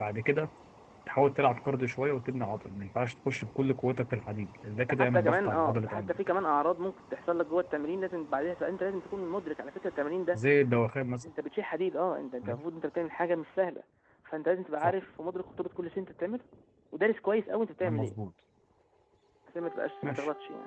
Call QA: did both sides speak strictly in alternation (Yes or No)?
No